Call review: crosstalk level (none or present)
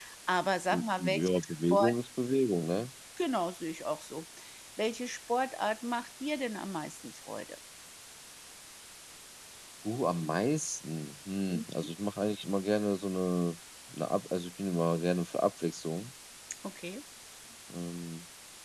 present